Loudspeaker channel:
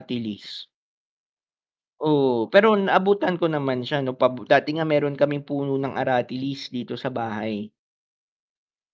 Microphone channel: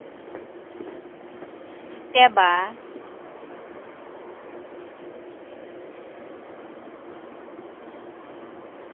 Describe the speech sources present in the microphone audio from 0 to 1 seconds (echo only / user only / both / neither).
neither